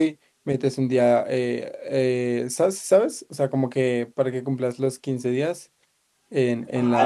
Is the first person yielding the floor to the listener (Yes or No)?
Yes